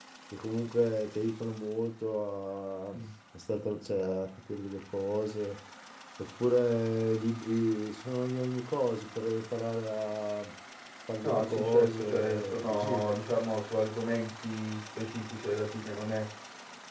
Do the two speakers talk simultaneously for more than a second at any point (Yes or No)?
Yes